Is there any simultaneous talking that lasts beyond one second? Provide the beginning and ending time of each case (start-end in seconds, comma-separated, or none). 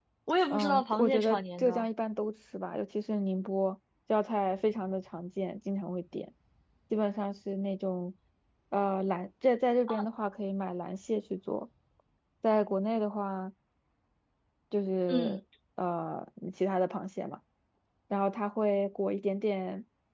0.5-1.9